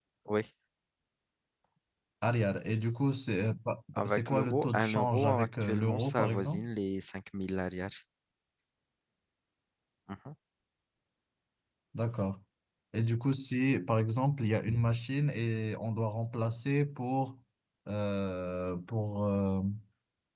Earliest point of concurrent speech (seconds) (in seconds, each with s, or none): 4.0 s